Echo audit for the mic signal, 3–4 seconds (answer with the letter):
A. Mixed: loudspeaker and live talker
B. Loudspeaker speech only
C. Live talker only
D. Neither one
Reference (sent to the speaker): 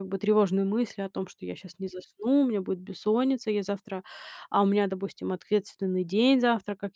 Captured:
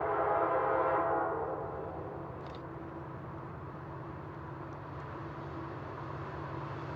D